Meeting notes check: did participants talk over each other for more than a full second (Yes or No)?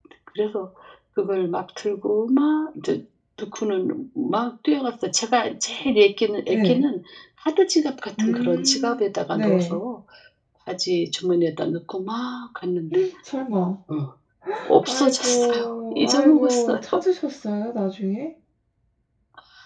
Yes